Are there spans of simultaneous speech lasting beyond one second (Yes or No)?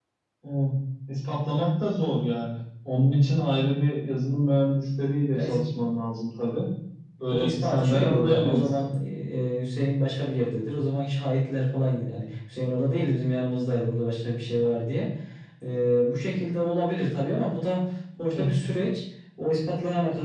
Yes